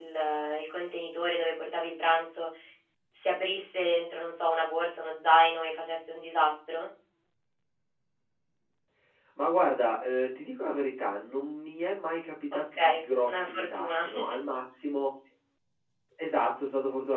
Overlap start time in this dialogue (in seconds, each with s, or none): 12.5 s